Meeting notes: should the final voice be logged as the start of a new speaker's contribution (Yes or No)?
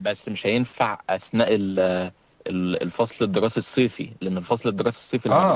Yes